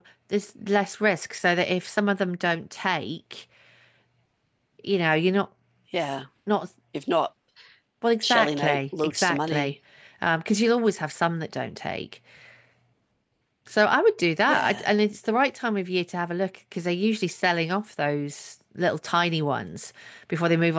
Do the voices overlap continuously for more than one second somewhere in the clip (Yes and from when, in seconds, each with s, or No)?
Yes, from 8.2 s